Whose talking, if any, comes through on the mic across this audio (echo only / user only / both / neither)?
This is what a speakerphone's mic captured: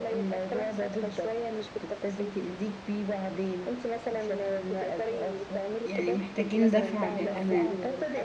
both